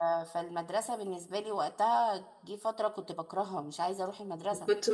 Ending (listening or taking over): taking over